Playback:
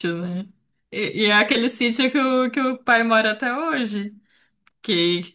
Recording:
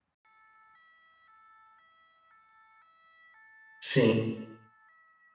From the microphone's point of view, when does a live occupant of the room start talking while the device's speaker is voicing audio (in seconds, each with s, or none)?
3.8 s